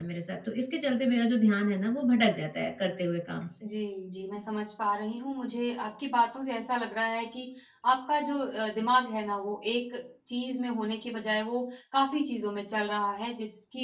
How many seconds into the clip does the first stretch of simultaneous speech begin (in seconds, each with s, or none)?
none